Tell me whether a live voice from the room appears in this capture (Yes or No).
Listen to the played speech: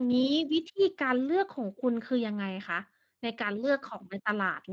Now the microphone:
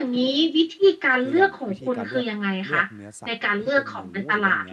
Yes